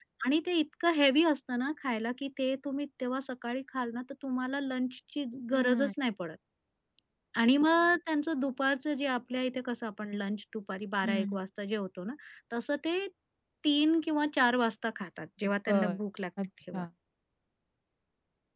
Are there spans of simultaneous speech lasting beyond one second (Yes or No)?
No